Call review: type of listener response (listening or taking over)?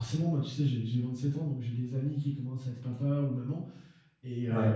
listening